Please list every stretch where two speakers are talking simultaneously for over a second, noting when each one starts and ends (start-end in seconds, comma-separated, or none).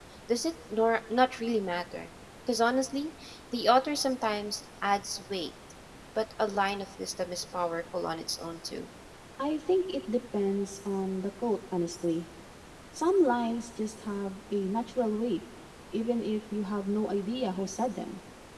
none